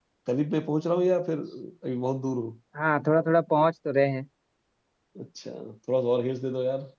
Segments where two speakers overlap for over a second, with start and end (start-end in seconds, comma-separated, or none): none